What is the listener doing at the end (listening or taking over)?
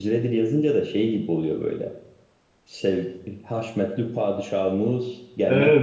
taking over